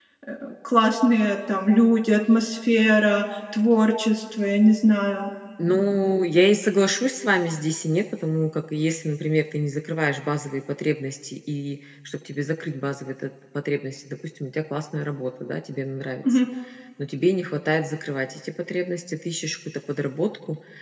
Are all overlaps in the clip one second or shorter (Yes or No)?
Yes